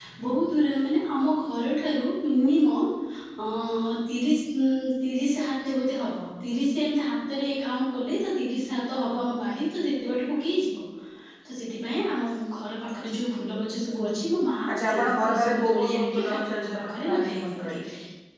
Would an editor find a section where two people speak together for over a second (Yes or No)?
Yes